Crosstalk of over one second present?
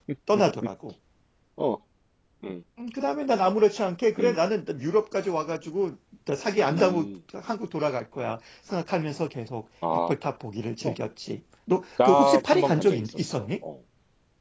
Yes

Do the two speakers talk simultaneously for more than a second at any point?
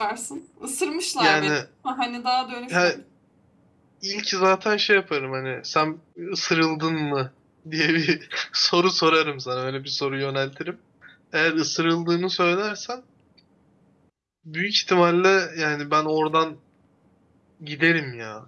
No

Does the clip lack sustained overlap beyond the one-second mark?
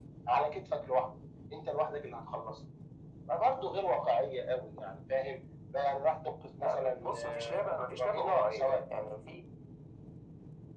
No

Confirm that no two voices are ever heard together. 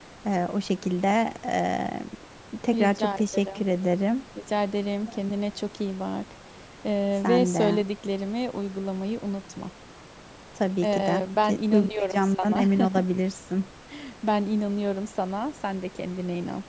No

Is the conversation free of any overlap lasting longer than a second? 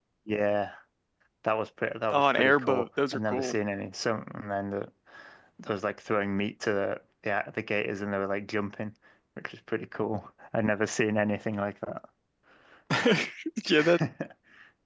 No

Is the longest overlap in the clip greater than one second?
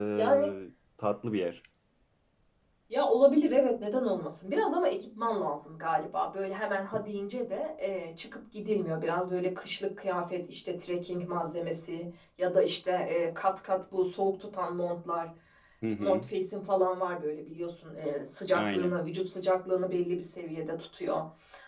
No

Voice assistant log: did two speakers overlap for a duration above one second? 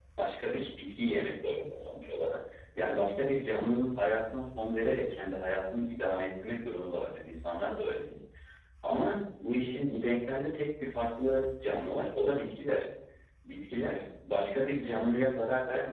No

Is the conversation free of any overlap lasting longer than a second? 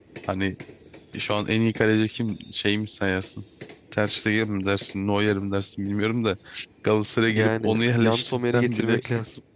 No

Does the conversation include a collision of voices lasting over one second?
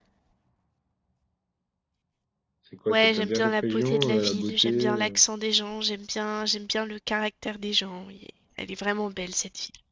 Yes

